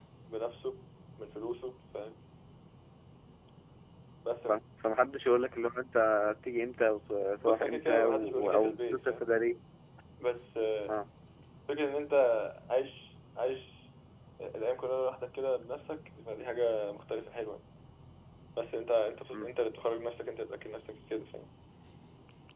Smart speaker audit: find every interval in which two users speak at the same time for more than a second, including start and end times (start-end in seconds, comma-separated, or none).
7.4-9.2